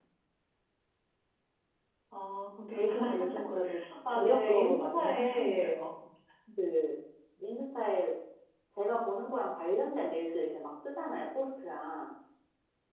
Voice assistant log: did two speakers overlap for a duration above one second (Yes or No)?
Yes